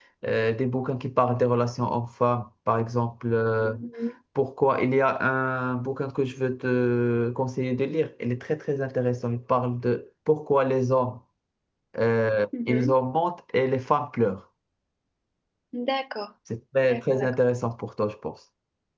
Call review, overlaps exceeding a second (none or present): none